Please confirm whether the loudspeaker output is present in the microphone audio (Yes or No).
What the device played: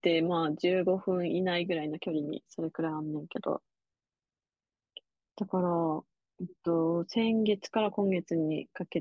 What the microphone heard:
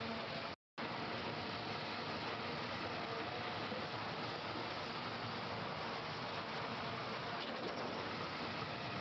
No